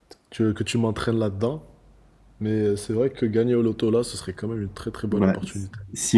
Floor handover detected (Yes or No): Yes